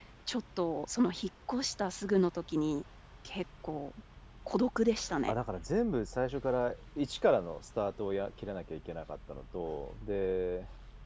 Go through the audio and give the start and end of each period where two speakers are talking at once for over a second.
none

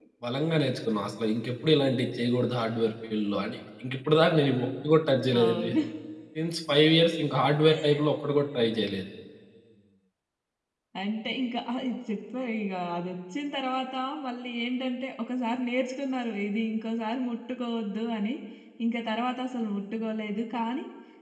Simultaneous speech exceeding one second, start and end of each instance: none

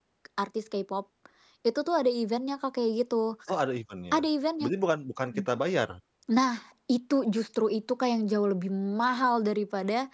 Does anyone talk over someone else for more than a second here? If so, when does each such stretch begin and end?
none

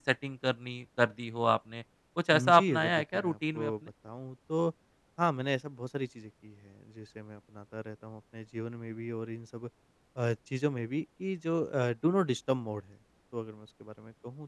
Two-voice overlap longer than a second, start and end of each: 2.3-3.7

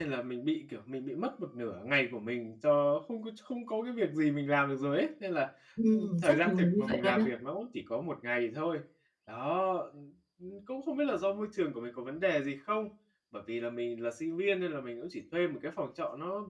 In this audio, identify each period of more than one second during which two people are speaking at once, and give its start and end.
5.9-7.2

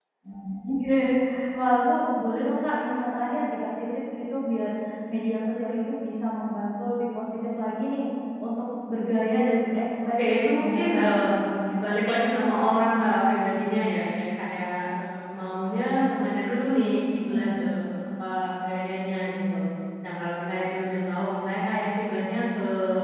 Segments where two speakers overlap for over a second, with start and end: 10.0-11.3

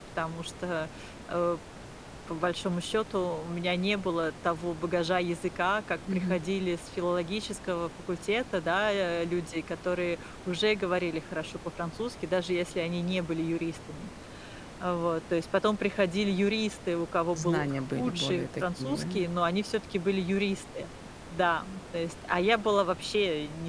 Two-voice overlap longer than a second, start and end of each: 17.3-19.2

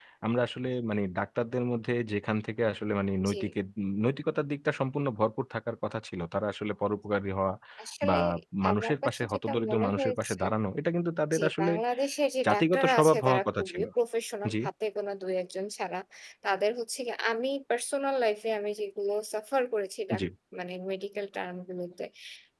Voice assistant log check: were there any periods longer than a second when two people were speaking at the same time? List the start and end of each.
8.7-10.4, 12.5-13.8

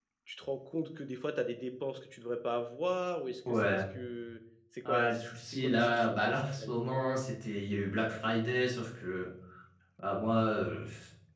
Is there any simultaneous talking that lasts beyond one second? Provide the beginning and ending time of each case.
4.8-6.7

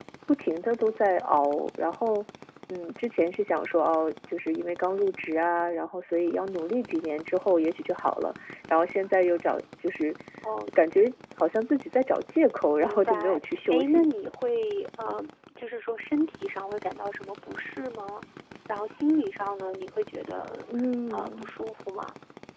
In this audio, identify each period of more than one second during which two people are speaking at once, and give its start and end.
12.8-14.1

